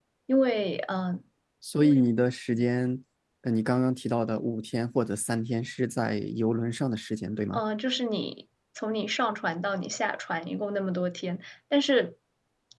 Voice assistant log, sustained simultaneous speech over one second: none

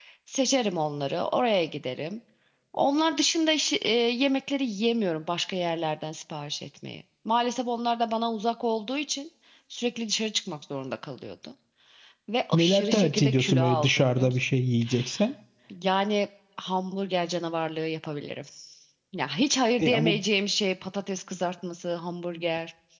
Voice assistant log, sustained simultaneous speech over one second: present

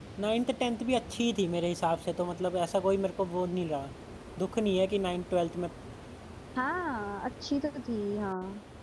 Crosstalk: none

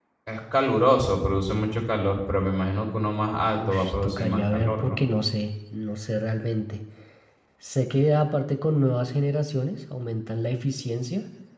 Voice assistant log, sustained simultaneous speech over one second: present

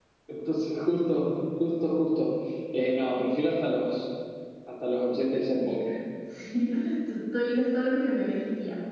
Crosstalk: none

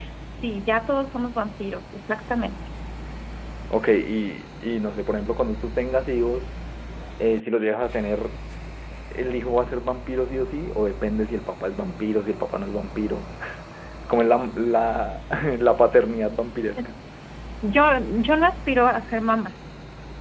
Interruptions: none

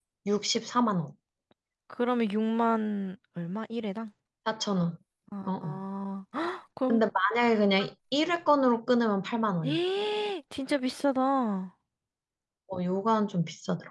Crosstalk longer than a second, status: none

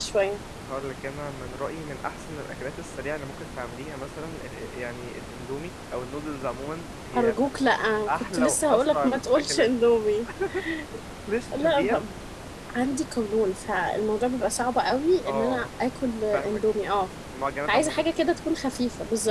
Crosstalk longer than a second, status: present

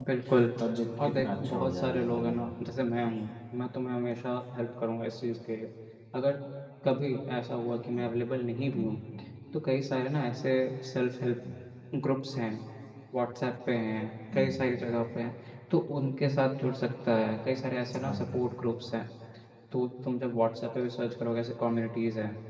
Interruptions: present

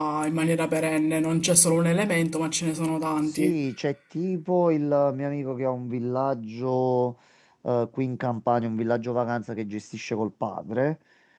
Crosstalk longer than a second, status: none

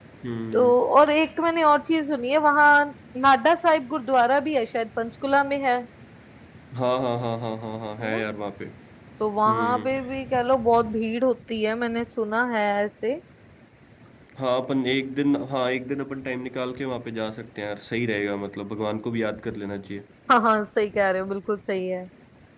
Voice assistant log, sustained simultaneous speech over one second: none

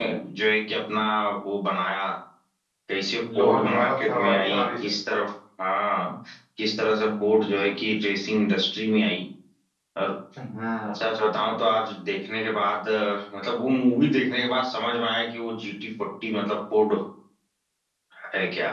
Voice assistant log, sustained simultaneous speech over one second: present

